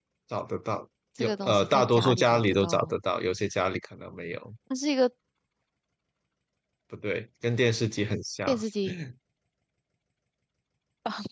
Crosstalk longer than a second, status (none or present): present